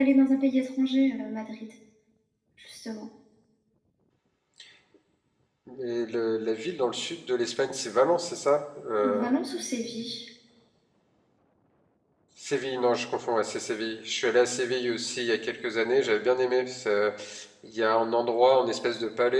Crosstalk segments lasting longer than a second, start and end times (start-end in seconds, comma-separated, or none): none